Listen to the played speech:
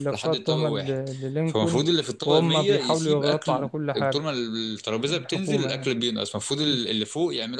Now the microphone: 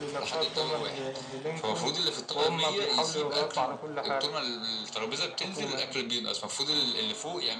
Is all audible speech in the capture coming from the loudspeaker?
Yes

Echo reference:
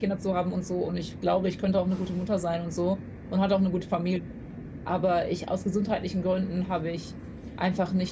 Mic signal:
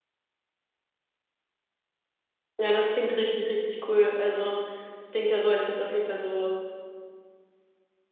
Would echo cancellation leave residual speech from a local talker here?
Yes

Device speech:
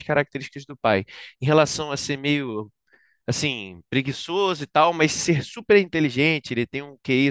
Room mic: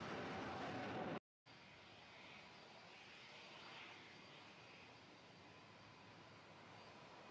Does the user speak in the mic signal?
No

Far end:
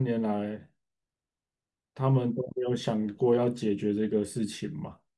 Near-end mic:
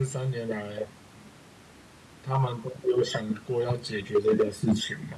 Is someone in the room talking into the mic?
No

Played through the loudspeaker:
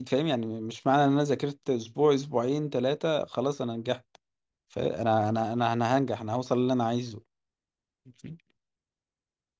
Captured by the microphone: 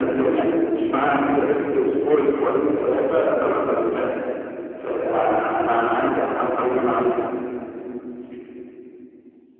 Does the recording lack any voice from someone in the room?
Yes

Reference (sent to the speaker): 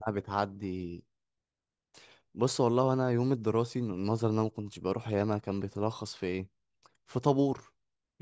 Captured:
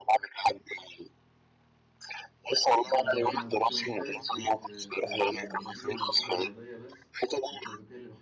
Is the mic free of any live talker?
No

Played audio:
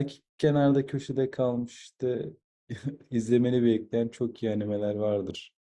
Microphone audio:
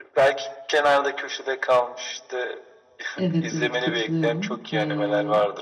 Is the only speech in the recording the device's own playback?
No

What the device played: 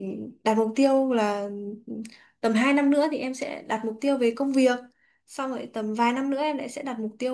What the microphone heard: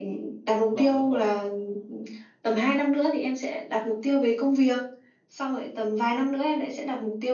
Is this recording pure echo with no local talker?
No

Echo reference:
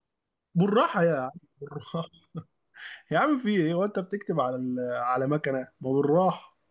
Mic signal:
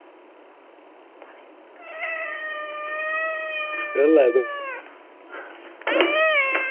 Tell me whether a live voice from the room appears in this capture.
Yes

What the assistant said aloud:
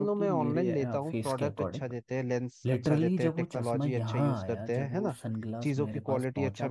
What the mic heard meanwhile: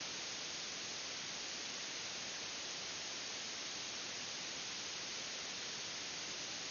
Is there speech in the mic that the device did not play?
No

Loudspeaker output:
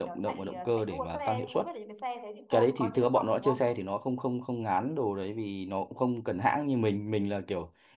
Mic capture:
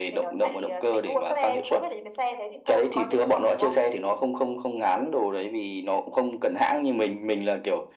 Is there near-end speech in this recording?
No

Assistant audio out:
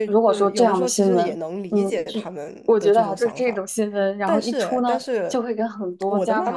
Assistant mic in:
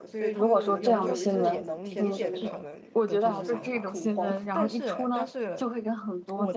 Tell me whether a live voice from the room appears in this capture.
Yes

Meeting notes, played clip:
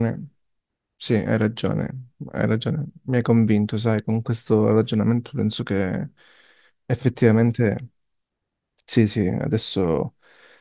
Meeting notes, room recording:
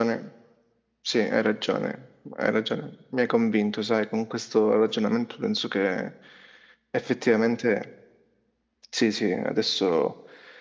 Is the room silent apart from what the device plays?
Yes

